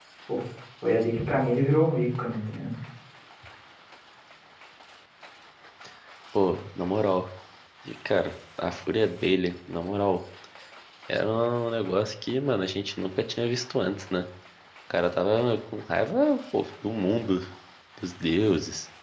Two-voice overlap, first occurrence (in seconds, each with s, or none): none